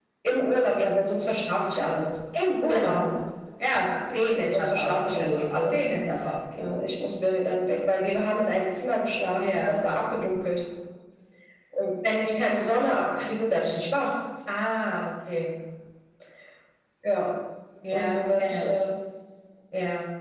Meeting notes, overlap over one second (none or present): present